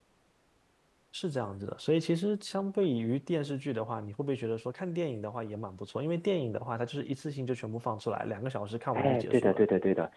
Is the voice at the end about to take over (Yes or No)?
Yes